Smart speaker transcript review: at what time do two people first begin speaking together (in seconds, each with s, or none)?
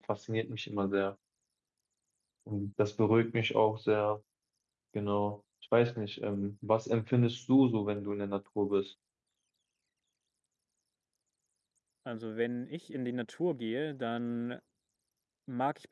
none